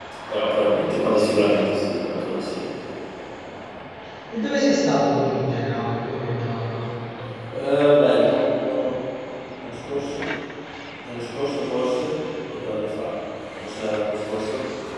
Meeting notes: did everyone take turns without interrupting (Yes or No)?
Yes